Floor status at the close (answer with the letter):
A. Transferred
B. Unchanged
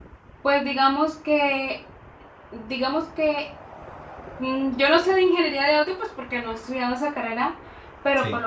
B